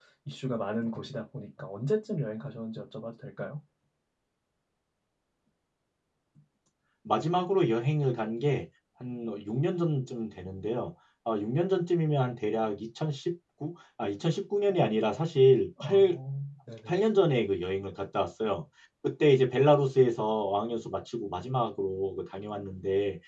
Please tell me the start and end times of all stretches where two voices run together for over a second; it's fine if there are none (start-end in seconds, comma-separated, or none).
none